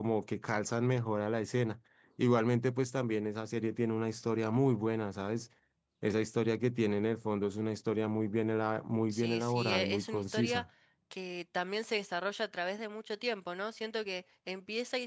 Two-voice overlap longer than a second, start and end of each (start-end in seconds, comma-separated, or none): 9.1-10.6